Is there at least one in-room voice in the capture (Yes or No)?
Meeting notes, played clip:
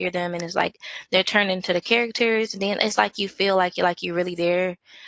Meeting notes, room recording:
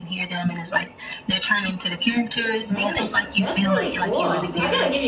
Yes